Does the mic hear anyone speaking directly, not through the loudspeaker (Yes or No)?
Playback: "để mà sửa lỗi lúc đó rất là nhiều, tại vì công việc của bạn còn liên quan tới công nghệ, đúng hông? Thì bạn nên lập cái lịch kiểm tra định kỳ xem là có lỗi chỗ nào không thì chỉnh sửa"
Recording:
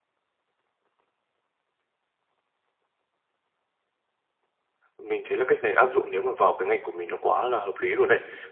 Yes